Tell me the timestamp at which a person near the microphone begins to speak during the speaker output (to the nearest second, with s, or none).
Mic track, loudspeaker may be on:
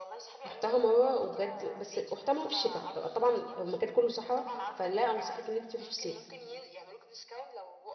0 s